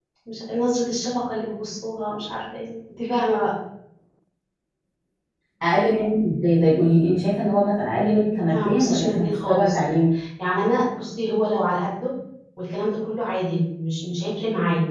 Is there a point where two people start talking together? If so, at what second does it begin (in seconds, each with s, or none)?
8.5 s